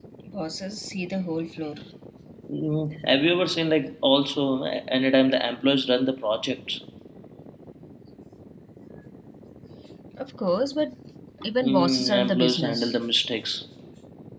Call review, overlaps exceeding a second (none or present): present